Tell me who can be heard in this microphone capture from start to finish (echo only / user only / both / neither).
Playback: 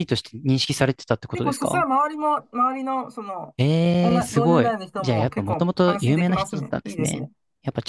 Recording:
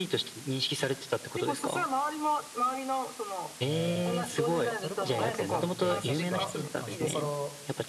both